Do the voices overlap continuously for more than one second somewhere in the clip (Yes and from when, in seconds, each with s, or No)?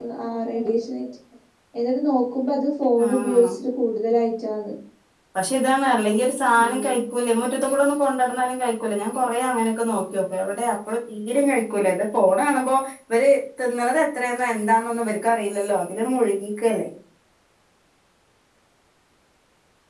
No